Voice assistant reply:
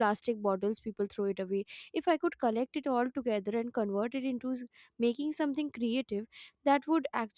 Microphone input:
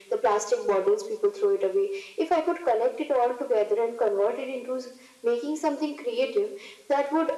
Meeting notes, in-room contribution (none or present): none